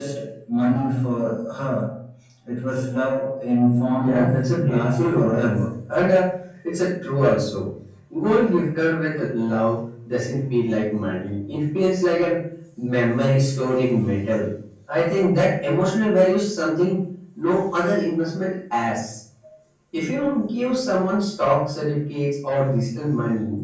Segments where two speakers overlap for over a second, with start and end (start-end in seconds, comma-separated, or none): 4.0-5.6